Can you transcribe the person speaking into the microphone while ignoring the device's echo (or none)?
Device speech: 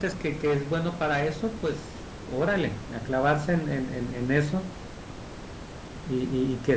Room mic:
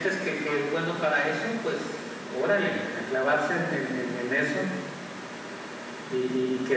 none